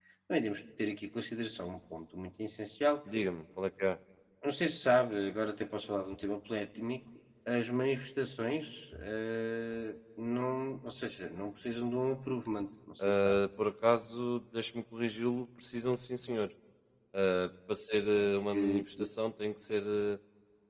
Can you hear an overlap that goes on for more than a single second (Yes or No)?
No